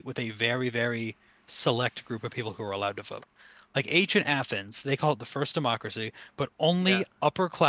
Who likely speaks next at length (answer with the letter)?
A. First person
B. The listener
A